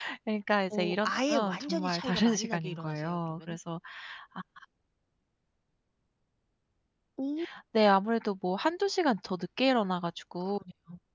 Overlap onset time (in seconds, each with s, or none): 0.7 s